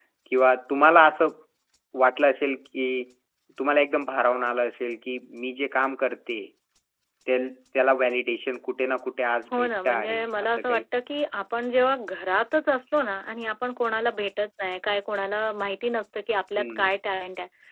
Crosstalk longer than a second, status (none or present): present